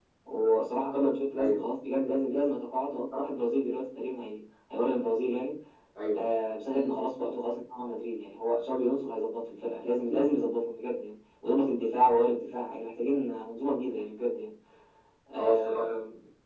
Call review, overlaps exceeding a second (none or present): none